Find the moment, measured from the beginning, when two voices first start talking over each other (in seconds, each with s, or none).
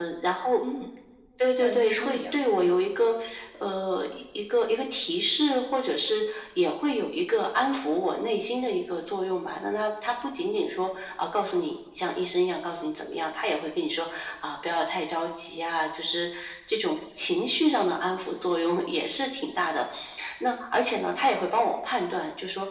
1.6 s